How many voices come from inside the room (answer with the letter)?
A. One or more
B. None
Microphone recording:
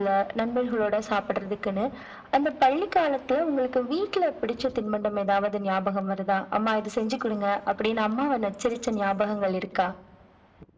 B